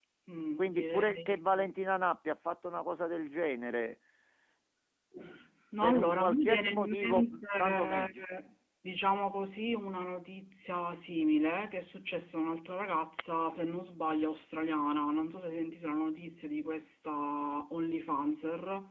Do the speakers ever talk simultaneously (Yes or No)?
Yes